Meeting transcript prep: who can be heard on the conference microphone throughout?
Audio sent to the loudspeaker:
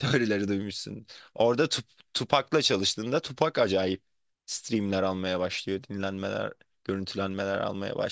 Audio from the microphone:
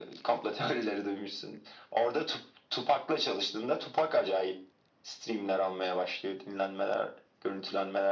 echo only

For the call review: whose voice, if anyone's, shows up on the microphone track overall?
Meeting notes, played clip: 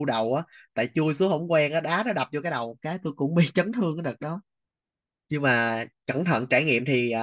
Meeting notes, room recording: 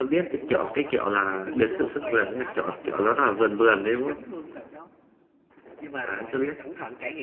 both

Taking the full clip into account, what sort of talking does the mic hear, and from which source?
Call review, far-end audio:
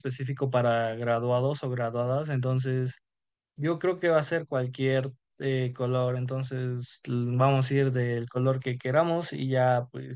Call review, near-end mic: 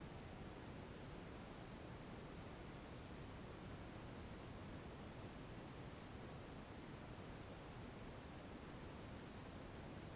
neither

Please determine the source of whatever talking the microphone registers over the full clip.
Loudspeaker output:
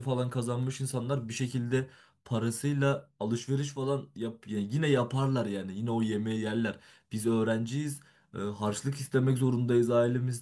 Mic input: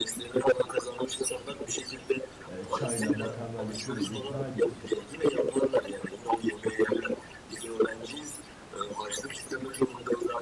both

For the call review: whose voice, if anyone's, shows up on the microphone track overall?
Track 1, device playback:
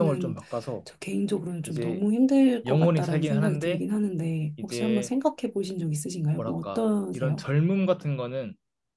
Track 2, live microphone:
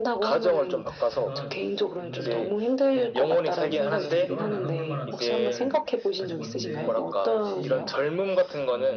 both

